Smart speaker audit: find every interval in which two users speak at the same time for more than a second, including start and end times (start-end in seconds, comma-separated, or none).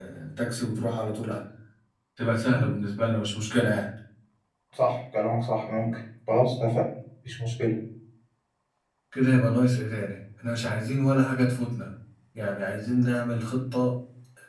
none